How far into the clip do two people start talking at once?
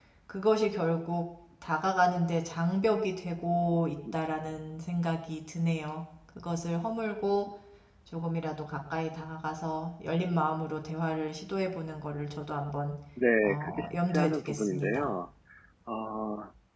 13.4 s

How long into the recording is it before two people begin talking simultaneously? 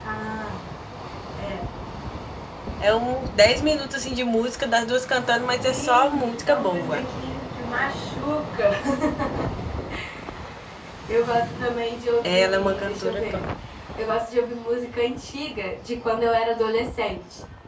5.7 s

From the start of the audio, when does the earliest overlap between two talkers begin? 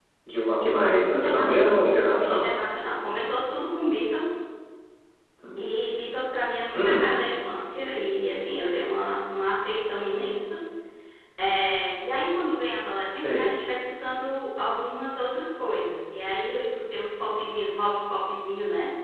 1.1 s

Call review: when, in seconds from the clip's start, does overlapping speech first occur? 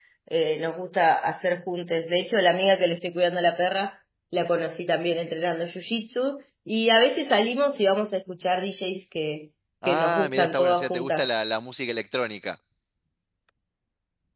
9.8 s

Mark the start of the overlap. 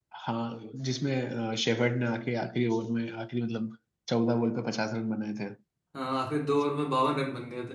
none

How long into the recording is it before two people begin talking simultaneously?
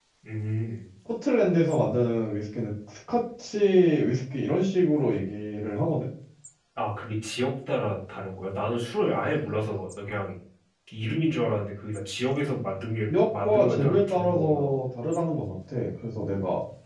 13.1 s

